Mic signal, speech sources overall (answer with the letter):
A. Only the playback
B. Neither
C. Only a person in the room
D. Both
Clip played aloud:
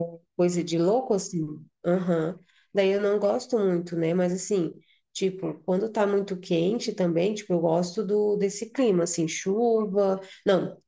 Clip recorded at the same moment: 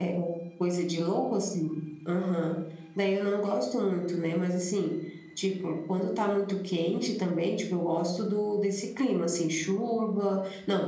A